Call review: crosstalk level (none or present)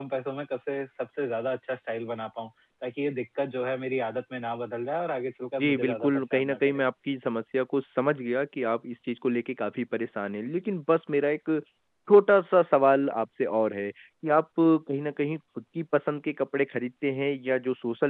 present